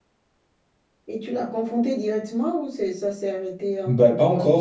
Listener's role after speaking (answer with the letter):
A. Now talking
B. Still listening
A